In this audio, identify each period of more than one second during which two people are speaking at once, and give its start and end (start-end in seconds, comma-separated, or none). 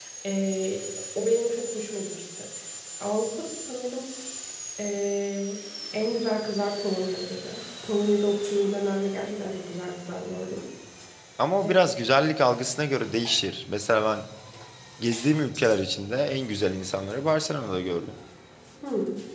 none